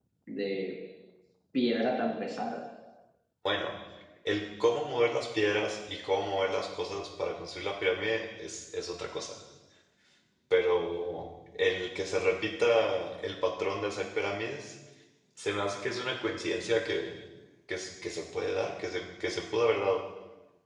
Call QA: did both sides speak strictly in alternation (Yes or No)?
Yes